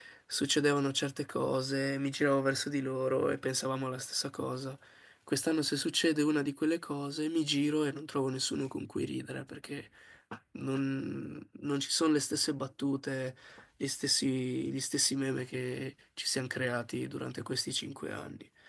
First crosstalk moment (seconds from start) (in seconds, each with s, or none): none